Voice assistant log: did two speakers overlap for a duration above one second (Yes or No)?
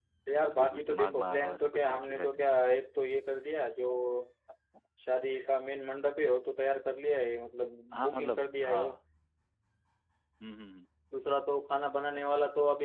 Yes